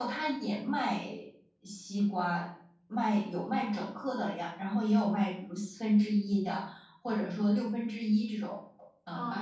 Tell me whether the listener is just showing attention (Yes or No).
No